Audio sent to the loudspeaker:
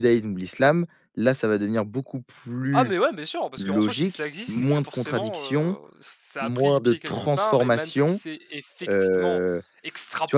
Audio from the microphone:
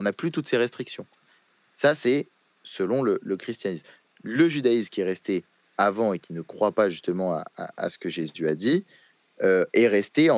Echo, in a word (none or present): none